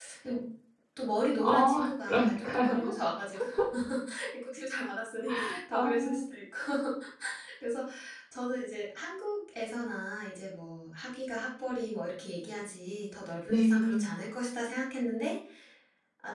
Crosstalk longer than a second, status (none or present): present